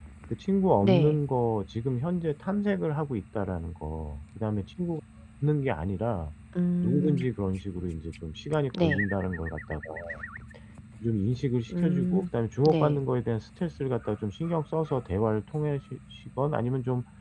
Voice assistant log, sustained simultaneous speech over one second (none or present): none